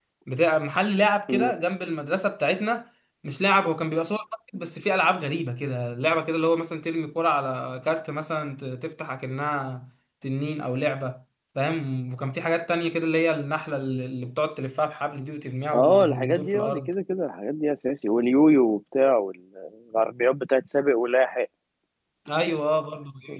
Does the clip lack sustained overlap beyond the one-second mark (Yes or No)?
No